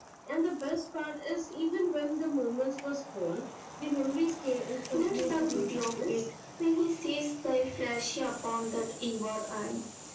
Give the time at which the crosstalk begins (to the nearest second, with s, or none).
5 s